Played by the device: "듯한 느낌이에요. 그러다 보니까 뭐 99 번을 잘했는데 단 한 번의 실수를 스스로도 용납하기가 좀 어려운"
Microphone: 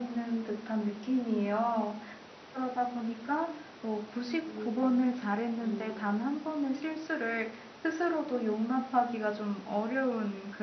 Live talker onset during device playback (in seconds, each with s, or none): 4.4 s